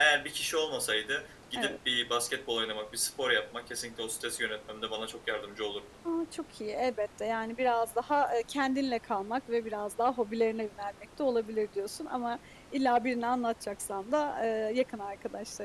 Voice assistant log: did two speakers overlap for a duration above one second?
No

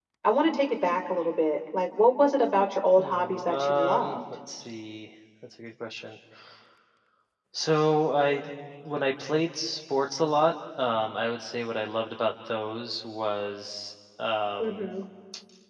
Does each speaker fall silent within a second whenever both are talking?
No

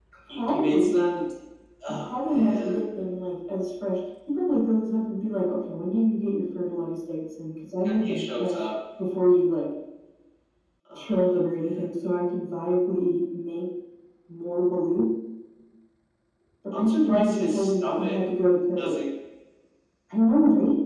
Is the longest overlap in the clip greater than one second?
Yes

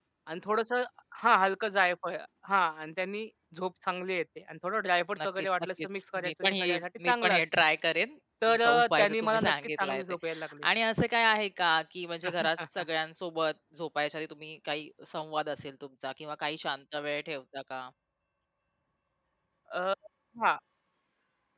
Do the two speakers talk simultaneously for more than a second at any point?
Yes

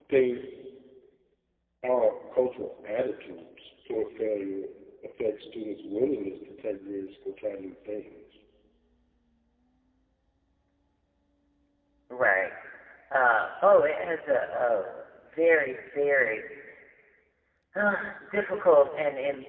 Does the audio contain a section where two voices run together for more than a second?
No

